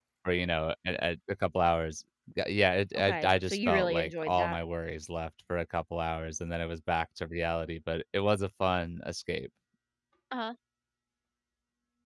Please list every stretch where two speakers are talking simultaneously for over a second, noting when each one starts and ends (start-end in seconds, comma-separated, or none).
3.0-4.6